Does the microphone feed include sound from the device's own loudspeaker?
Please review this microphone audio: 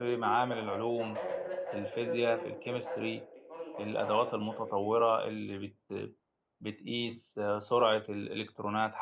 Yes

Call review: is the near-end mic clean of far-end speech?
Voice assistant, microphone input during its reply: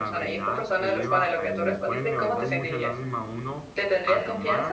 No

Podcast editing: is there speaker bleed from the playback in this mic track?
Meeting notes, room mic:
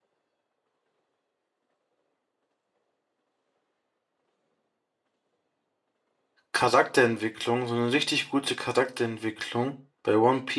No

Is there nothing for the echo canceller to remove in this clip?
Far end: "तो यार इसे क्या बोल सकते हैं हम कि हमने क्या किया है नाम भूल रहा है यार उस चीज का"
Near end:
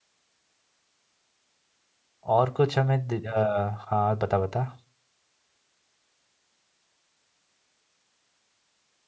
Yes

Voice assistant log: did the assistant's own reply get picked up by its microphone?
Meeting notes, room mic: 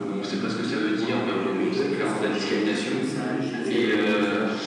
Yes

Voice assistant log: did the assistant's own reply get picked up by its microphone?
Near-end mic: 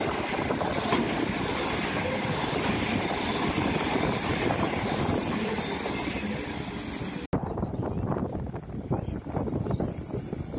No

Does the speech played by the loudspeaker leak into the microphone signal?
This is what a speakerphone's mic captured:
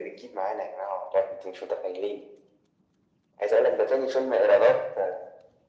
Yes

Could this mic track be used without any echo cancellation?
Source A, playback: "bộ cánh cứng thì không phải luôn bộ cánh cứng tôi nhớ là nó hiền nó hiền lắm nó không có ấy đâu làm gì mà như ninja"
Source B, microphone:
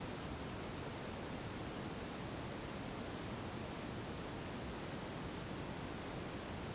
Yes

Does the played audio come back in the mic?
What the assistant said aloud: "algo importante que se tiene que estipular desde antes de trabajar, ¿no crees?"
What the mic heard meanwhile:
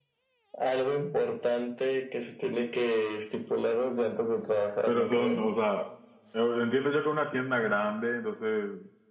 Yes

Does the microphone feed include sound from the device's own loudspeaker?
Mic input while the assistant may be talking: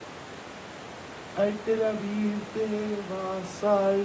No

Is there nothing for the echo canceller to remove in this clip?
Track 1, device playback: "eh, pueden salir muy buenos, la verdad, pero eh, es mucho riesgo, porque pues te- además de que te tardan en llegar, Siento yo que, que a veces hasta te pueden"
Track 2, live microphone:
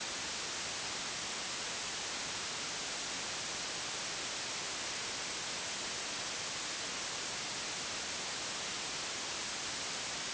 Yes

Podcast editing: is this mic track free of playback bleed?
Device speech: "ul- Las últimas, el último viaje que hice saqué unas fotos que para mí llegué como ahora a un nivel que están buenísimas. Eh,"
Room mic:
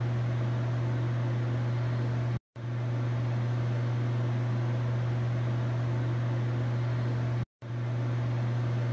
Yes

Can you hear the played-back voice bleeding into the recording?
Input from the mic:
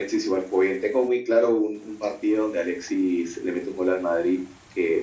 Yes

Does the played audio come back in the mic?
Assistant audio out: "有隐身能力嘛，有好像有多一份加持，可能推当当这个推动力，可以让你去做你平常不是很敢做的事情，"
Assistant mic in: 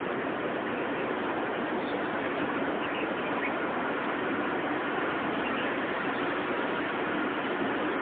No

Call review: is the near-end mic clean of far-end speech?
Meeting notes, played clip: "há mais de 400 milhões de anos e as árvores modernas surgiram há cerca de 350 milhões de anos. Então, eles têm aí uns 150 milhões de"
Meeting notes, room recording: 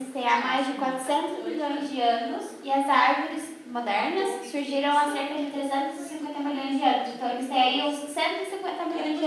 No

